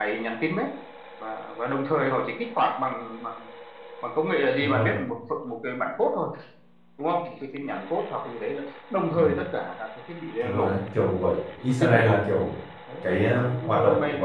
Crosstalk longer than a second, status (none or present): present